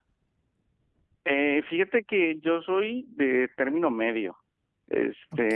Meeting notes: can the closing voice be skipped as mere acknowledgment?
Yes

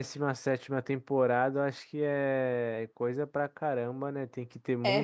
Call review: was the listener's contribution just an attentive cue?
Yes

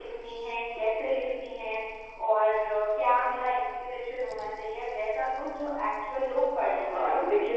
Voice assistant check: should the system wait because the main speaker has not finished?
No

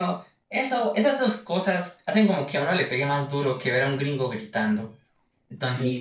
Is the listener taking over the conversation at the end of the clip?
Yes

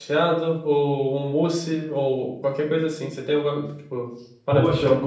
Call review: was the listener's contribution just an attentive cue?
No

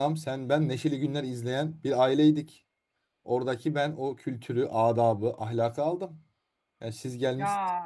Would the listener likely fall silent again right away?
Yes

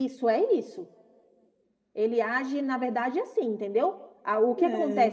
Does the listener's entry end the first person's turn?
No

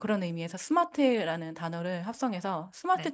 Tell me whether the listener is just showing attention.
Yes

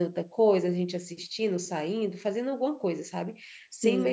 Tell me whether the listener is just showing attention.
Yes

